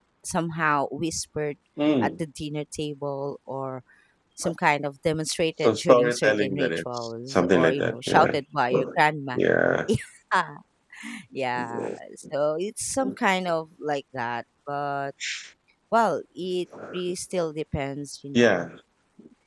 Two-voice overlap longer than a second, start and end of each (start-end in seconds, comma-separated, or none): 5.6-8.4